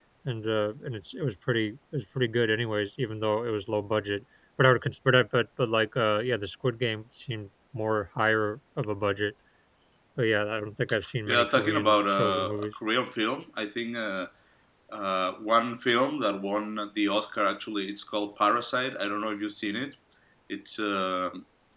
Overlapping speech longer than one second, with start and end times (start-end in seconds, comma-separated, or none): 11.3-12.7